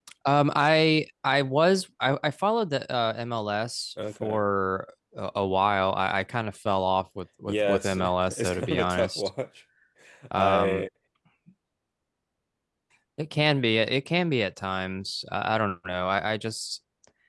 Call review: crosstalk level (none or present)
present